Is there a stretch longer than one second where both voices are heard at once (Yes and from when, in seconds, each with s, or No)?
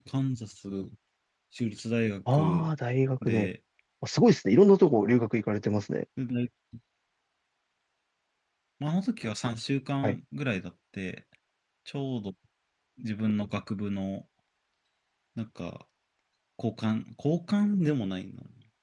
No